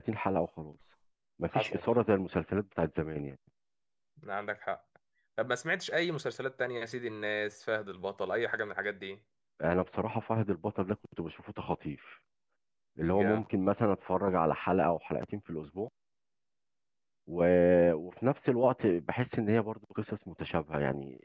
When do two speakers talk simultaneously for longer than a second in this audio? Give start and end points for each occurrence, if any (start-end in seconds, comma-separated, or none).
none